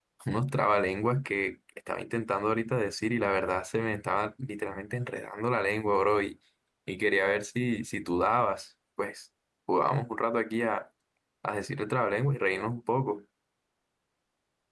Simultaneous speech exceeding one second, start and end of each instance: none

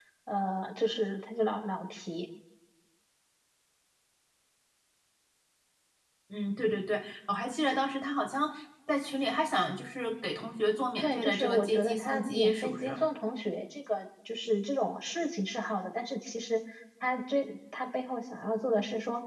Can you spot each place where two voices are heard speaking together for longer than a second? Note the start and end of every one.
11.0-13.0

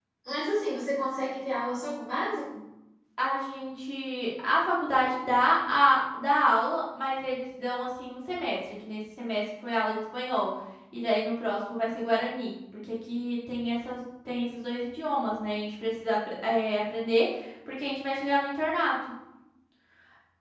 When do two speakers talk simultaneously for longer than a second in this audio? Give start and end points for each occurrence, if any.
none

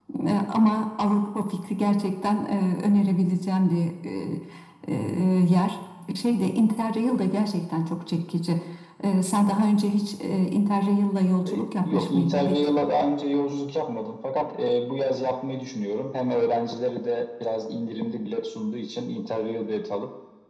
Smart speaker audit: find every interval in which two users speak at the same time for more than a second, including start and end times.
11.5-12.7

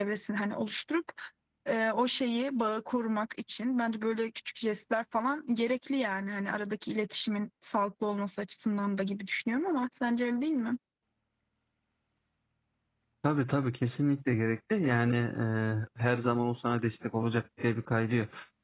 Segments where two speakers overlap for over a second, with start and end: none

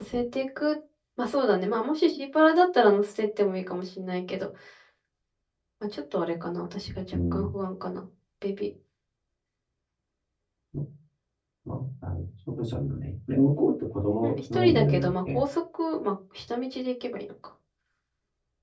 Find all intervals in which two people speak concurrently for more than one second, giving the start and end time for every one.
14.2-15.4

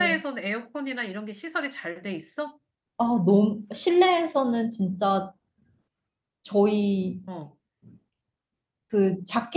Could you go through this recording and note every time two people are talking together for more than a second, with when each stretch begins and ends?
none

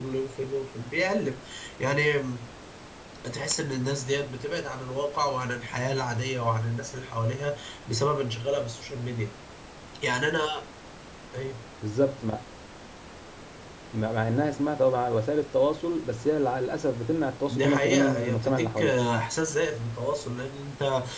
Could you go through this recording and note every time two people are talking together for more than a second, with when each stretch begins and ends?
17.5-18.9

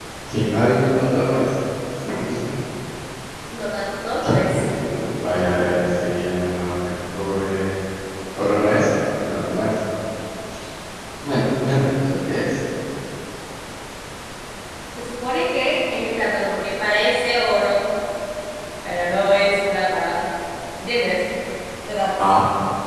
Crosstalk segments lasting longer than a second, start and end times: none

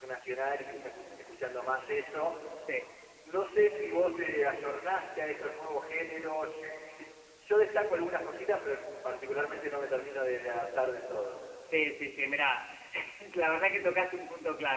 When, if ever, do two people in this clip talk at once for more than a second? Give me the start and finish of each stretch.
none

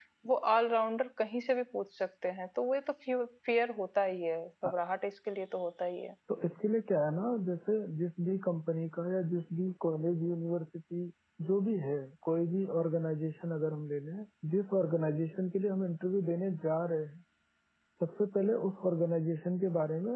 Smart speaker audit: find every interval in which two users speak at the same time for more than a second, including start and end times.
none

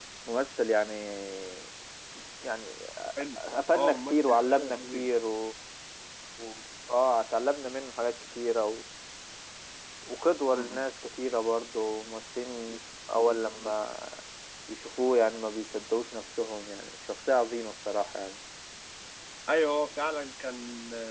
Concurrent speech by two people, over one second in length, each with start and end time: 3.8-5.1

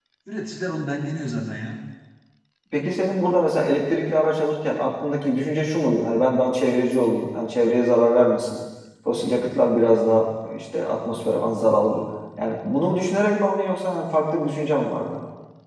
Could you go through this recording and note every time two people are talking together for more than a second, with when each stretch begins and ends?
none

